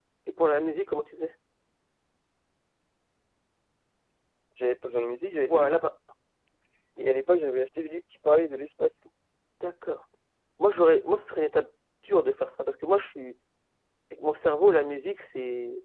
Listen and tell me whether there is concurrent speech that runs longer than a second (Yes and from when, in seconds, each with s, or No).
No